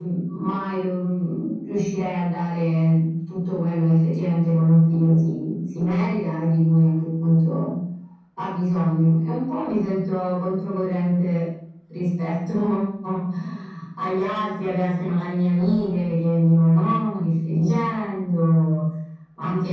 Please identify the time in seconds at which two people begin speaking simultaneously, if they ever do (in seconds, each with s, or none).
none